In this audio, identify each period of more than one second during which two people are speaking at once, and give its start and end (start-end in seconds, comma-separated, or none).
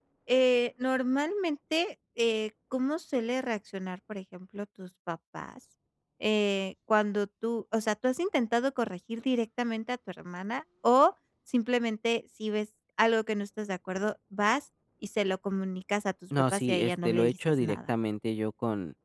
16.5-17.9